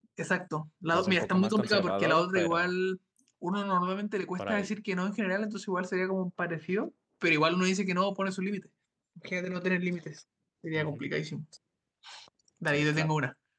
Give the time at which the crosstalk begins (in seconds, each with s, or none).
0.9 s